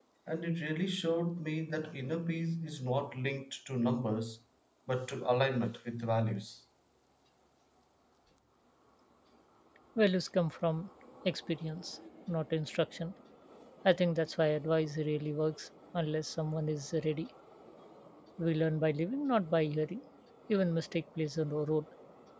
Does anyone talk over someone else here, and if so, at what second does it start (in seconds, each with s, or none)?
none